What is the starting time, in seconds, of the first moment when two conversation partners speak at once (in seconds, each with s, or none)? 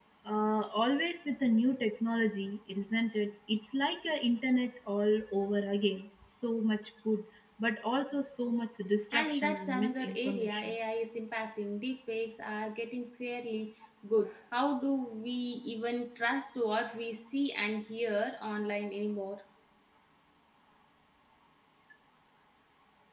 9.1 s